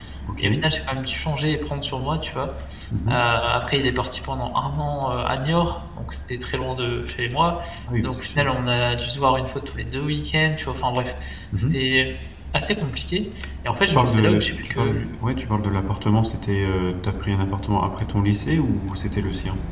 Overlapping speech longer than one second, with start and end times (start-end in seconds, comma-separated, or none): 13.7-15.0